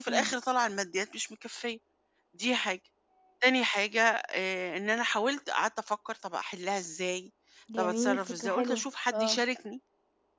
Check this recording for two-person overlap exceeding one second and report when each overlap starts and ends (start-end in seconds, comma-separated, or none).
7.8-9.4